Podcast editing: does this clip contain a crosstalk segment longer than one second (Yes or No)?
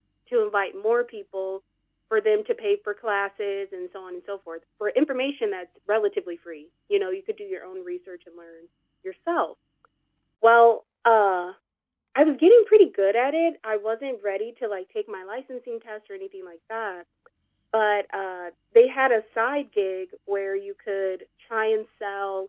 No